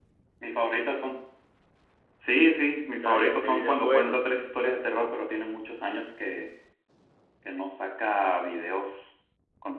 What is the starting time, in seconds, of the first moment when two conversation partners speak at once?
2.9 s

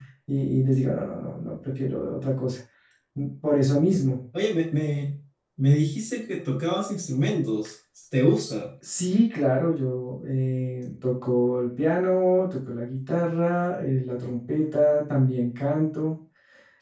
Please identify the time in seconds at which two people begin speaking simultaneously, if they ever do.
none

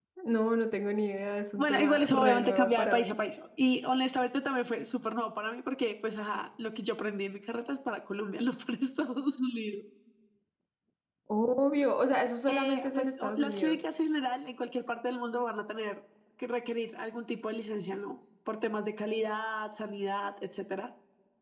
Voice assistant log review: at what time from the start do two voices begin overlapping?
1.6 s

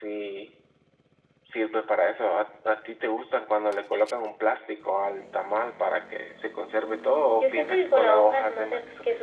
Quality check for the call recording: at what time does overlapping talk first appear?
7.4 s

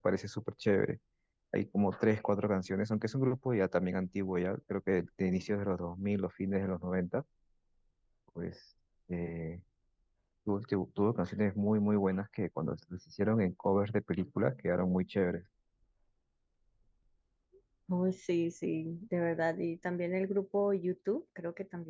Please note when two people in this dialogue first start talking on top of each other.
none

